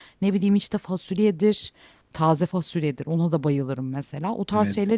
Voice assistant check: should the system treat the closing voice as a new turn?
No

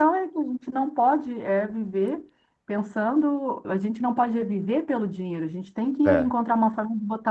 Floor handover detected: No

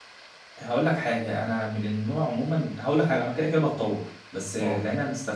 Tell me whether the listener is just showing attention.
Yes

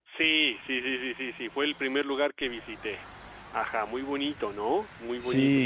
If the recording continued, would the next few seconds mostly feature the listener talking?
Yes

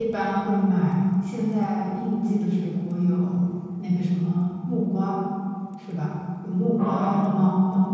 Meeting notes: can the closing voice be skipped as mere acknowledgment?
Yes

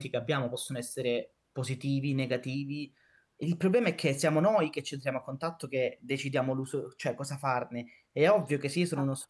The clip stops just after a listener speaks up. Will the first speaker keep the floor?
Yes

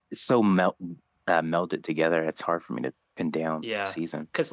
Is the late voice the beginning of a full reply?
Yes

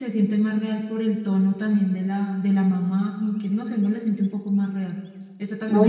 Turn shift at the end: Yes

